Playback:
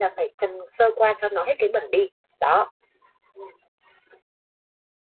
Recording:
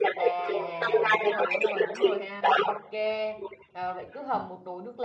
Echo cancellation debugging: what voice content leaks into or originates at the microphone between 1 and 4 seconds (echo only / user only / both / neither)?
both